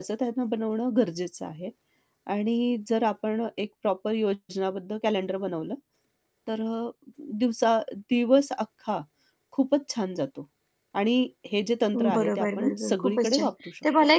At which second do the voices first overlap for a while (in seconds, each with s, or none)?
11.9 s